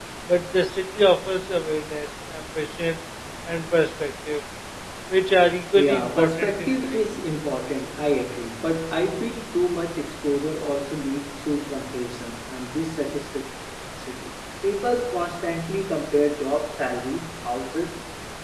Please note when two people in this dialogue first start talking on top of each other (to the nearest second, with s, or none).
6 s